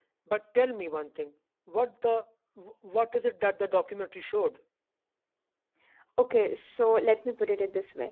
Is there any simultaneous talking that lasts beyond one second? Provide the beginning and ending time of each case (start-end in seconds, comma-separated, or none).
none